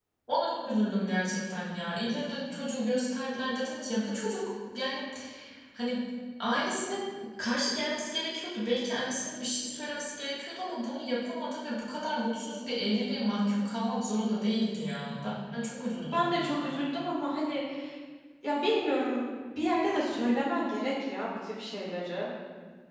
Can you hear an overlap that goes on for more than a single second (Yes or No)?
No